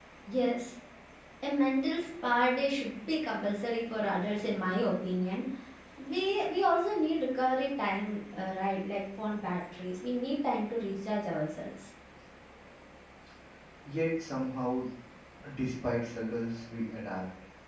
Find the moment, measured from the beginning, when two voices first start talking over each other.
none

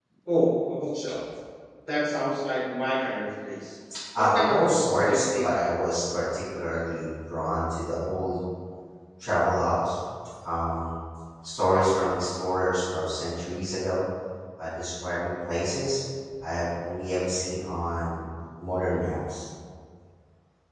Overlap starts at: 4.2 s

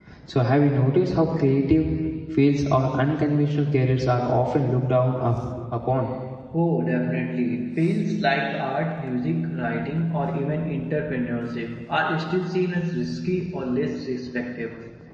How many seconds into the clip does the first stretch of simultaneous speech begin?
none

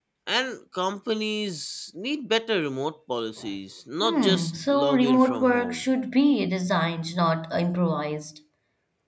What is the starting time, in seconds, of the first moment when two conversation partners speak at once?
4.0 s

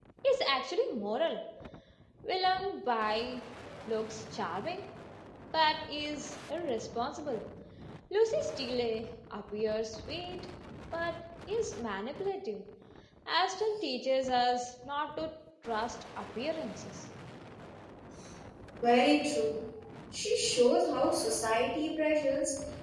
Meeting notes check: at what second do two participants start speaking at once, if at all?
none

